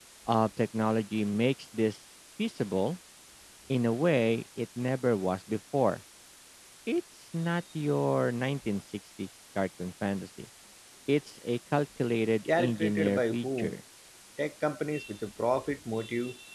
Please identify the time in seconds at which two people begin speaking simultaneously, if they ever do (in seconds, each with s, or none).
12.4 s